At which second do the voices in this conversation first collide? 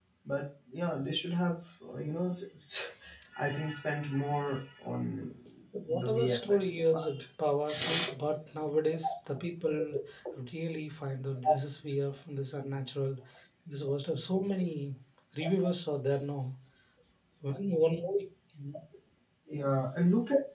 5.9 s

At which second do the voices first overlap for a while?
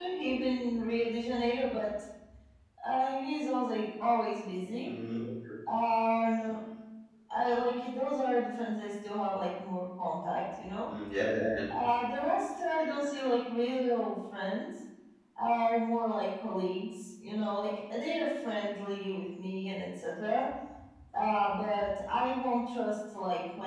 none

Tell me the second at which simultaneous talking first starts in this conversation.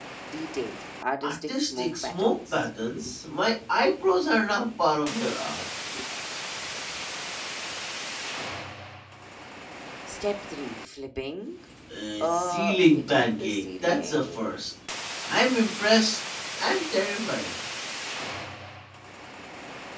1.2 s

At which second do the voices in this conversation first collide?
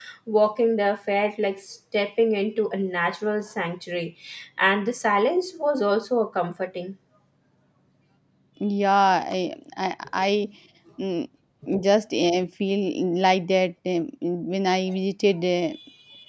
none

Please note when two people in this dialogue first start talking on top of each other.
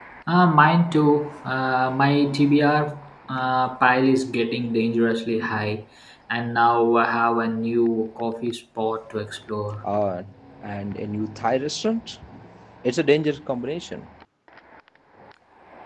none

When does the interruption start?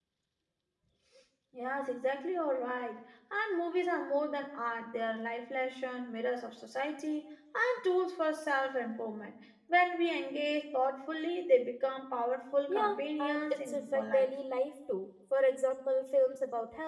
12.7 s

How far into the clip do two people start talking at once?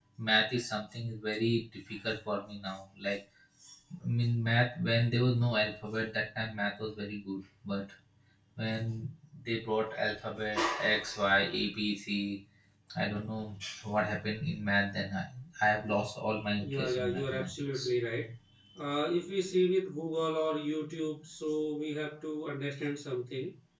16.6 s

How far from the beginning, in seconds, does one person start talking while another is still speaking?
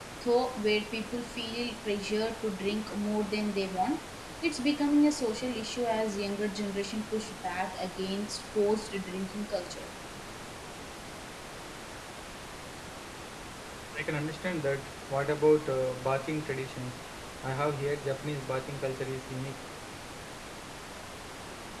none

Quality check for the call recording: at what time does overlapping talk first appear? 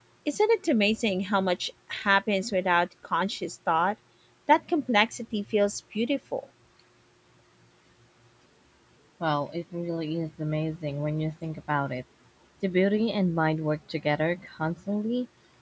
none

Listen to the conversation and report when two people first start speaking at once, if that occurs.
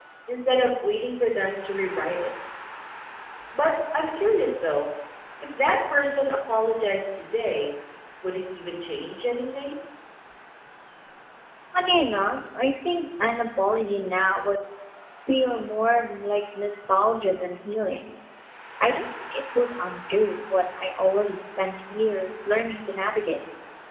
none

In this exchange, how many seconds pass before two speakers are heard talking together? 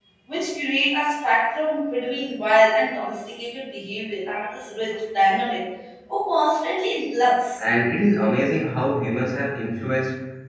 none

